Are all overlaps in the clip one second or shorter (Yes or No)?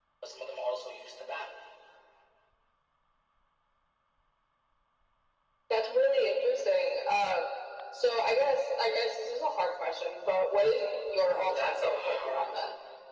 No